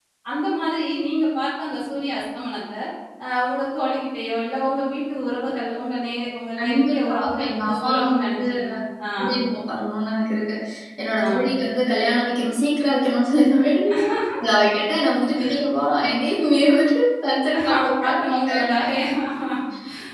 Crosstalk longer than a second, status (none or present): present